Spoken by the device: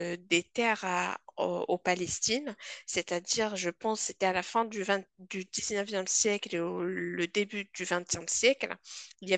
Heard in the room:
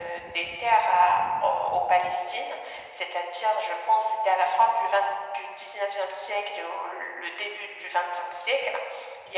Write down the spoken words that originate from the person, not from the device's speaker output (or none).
none